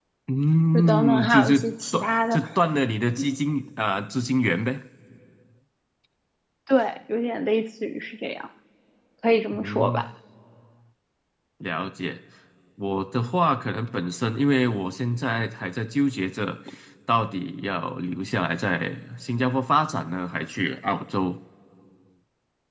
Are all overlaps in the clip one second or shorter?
No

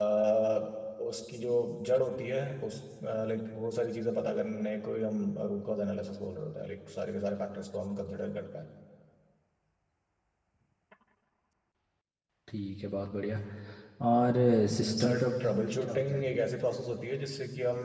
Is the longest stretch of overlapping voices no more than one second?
No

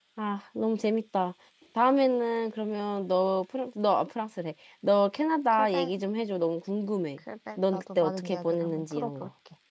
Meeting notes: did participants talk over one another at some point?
Yes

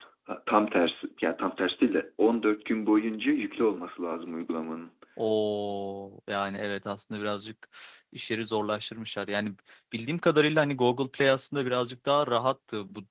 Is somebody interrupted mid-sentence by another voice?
No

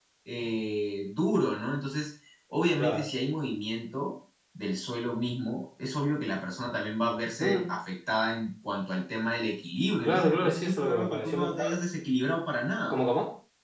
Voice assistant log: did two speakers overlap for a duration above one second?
Yes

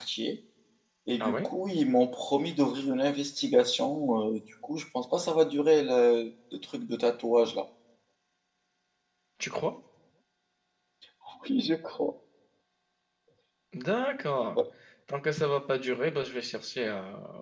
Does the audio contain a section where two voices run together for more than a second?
No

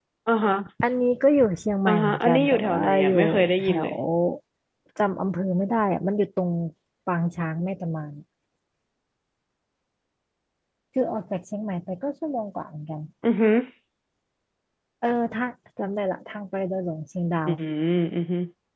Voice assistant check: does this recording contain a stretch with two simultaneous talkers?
Yes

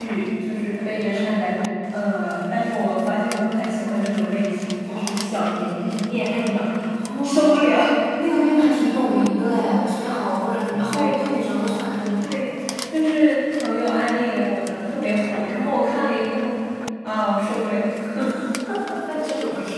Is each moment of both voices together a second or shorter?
Yes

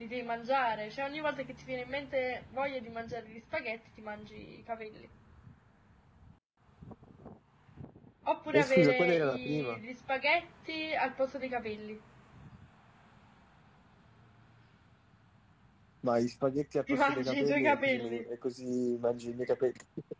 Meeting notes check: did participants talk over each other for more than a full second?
Yes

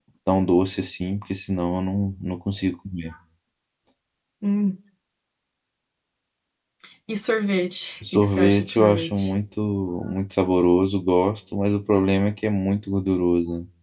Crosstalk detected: Yes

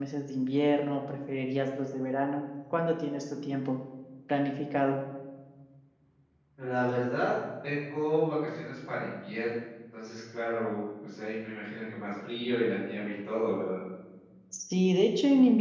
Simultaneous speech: No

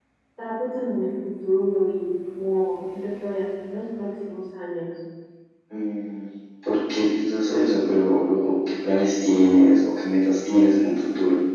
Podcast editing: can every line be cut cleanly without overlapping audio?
Yes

